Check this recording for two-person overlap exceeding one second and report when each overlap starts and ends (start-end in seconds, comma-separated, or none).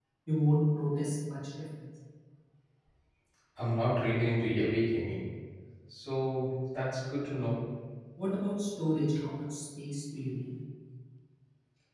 none